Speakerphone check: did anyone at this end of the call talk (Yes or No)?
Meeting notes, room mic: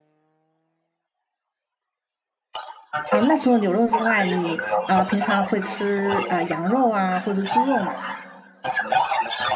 Yes